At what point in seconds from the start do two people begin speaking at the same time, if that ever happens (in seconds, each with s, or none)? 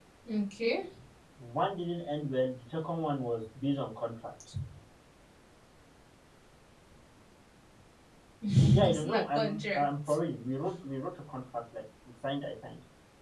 8.7 s